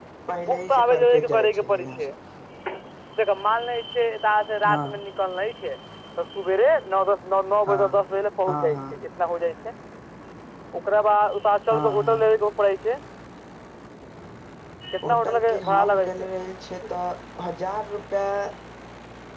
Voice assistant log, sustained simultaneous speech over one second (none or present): present